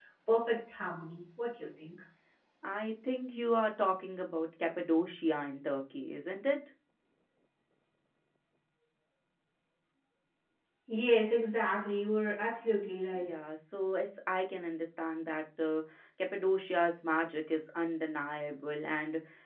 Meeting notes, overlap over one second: none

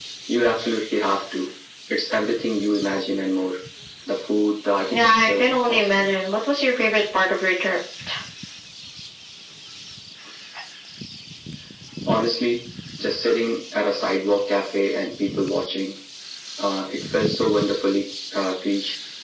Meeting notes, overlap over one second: present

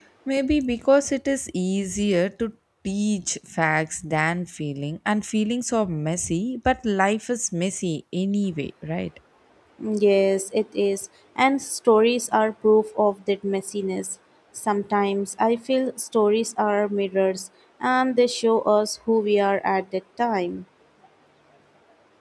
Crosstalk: none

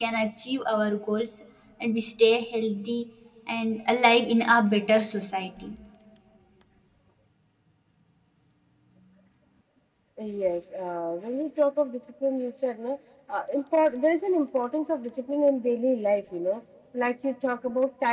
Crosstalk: none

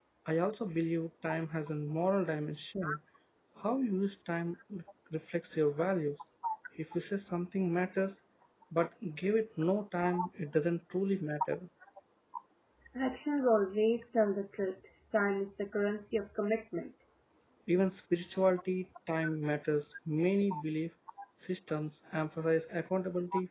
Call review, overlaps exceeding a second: none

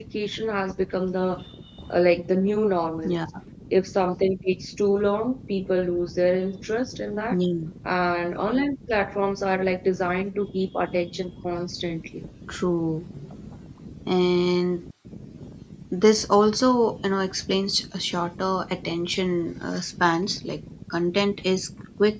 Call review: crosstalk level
none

